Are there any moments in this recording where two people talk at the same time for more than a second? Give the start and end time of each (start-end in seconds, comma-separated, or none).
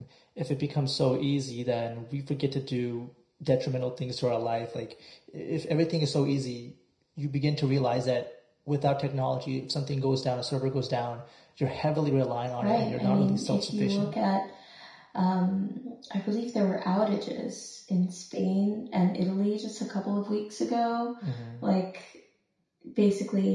12.6-14.1